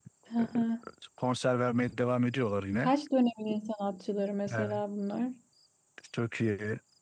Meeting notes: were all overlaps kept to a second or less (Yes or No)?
Yes